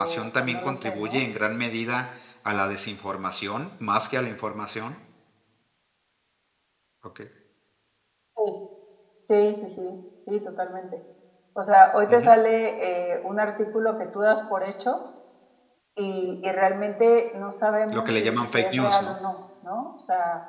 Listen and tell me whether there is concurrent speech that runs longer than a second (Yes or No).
Yes